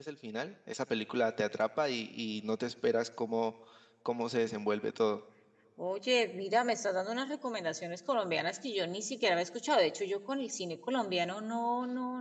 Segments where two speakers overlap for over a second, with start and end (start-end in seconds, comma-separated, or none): none